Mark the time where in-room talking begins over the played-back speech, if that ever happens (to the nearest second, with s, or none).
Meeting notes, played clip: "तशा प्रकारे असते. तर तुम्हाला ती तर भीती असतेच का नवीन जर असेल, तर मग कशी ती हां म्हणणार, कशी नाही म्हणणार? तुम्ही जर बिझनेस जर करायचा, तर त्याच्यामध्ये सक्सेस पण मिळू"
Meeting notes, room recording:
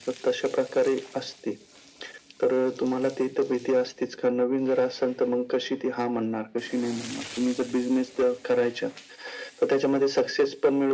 none